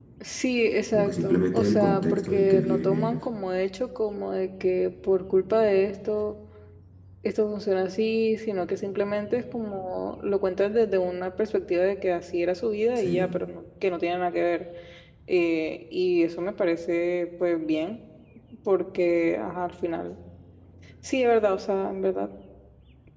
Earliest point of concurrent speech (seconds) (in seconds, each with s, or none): 0.9 s